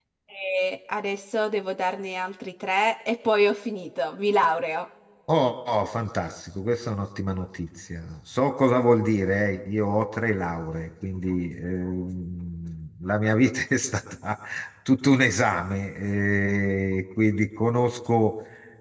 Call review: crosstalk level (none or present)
none